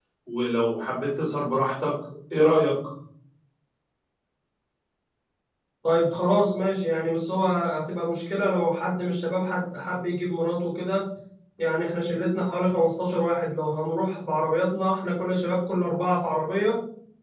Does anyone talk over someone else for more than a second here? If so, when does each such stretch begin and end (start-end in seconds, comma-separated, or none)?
none